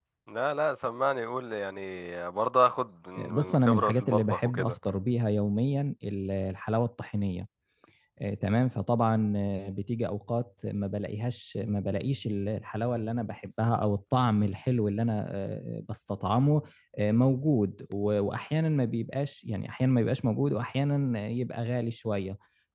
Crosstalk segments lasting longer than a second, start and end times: 3.3-4.8

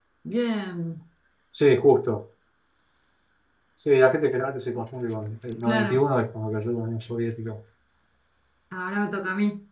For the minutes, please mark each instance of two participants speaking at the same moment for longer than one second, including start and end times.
none

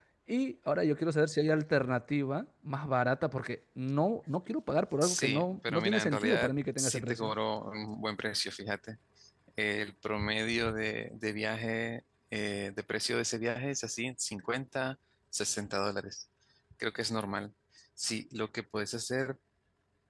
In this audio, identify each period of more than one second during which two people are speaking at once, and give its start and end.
5.0-7.3

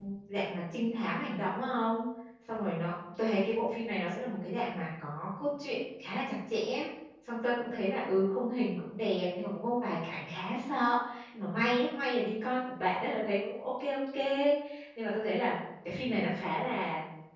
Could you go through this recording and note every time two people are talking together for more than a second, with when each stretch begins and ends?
none

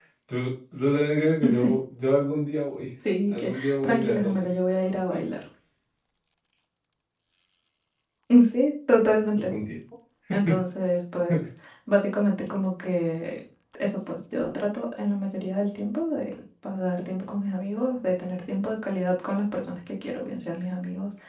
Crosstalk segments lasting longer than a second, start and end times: 3.3-4.5

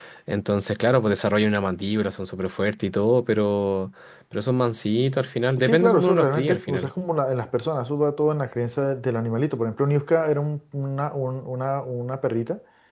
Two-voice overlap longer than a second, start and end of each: 5.6-6.9

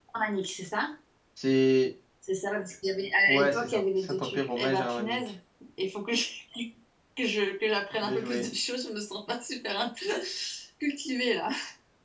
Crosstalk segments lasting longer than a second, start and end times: 3.3-5.3

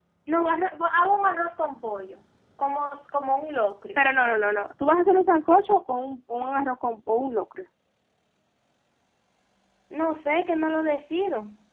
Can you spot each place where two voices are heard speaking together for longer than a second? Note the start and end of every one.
none

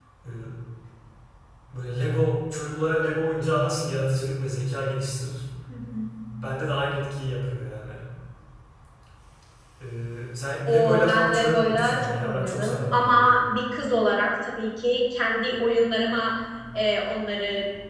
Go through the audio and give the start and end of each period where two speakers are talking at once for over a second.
10.7-13.4

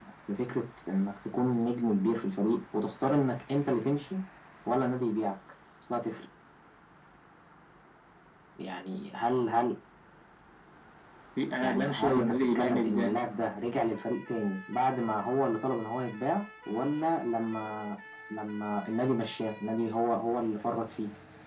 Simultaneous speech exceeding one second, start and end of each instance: 11.6-13.2

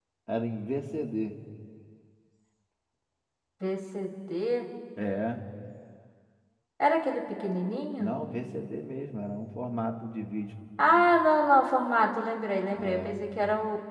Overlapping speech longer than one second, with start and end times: none

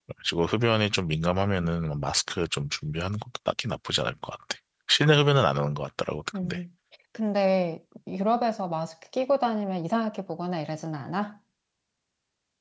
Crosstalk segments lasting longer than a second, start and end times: none

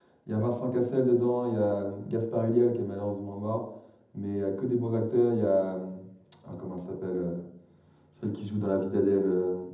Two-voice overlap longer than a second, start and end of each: none

